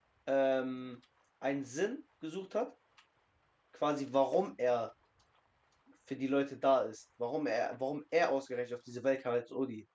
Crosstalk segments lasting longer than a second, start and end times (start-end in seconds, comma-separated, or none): none